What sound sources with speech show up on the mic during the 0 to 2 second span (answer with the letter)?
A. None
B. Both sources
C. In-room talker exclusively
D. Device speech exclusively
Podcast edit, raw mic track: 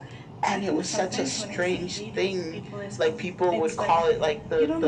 B